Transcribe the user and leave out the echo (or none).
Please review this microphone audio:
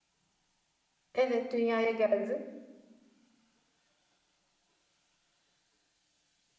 Evet, dünyaya geldi.